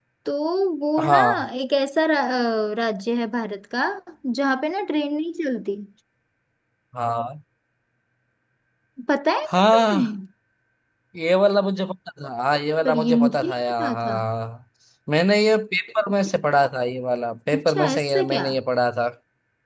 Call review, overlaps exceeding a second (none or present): present